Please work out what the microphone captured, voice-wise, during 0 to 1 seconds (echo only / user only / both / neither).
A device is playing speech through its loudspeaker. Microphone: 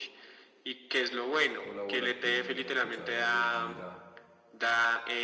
echo only